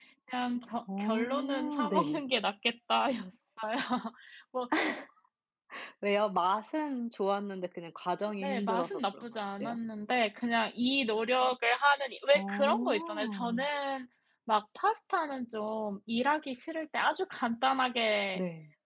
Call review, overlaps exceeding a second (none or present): present